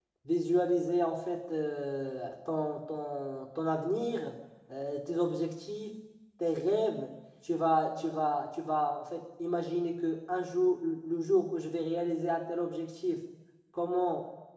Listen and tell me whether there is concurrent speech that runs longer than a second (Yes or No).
No